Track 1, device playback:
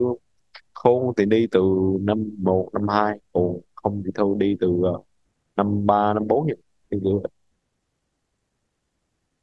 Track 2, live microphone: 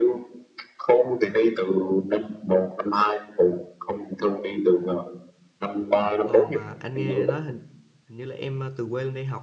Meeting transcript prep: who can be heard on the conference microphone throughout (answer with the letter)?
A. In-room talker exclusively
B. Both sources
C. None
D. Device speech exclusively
B